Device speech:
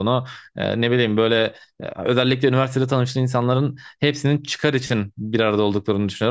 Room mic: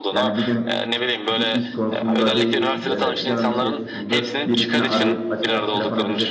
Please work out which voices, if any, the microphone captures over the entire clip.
both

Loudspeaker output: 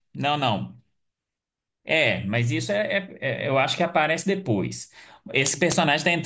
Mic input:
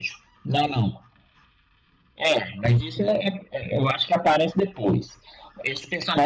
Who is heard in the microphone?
echo only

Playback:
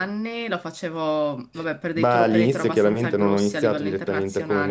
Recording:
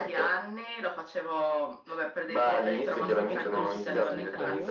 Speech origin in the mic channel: both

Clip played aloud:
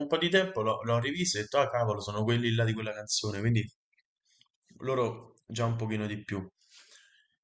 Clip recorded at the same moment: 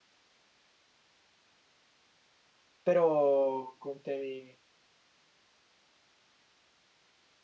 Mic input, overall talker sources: user only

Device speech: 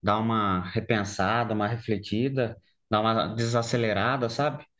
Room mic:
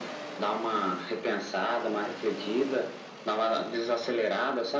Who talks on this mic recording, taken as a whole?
echo only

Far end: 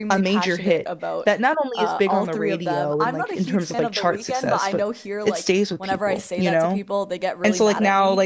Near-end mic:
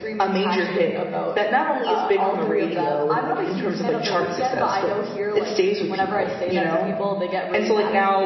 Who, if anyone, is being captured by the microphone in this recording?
echo only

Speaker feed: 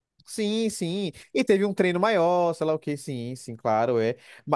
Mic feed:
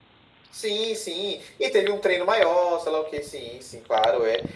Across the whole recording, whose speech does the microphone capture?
echo only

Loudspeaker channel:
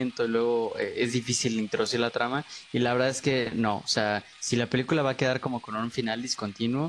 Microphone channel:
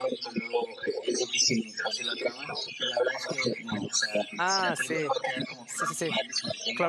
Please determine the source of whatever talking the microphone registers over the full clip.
both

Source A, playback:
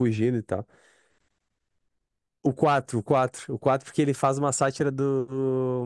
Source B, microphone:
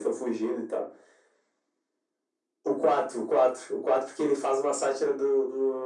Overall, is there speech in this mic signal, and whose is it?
echo only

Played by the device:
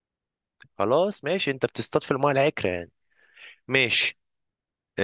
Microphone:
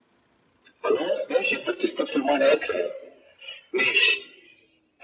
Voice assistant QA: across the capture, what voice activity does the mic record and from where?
echo only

